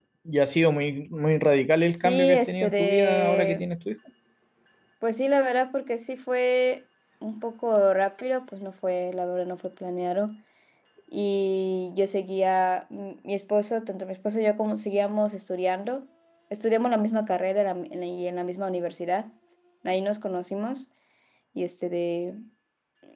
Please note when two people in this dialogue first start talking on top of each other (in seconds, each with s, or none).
1.9 s